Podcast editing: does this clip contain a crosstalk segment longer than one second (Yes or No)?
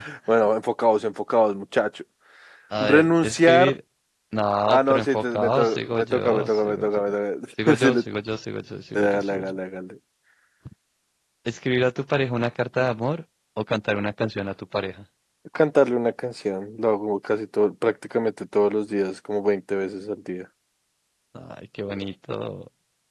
Yes